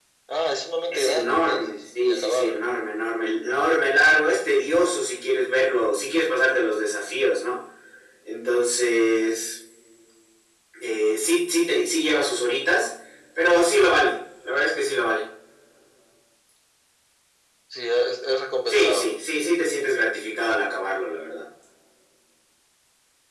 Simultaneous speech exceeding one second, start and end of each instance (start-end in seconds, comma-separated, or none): 0.9-2.6